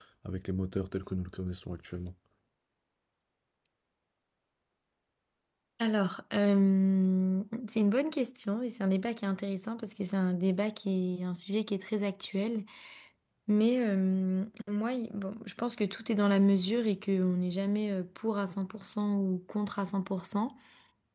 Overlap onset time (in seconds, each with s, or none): none